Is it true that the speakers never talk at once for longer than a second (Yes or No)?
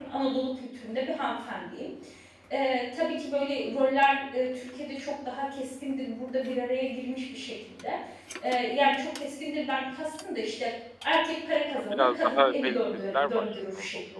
No